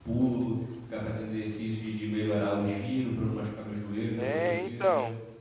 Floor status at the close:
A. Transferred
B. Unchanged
A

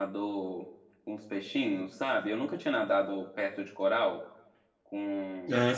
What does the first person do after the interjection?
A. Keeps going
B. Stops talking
B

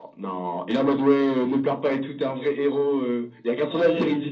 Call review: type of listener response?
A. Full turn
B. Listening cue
B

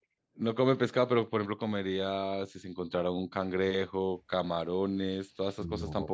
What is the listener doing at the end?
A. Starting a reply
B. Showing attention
A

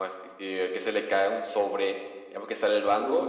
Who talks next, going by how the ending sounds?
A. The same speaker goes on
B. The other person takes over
A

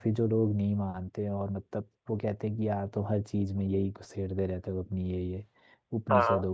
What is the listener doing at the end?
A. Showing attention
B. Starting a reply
A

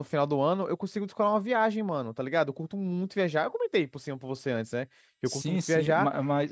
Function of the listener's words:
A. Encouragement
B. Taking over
B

